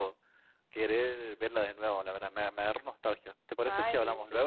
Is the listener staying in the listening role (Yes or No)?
No